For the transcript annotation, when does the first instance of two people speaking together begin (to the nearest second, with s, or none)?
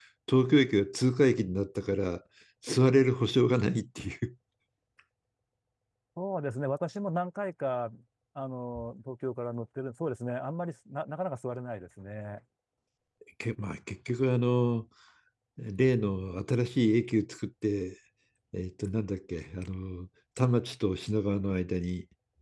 none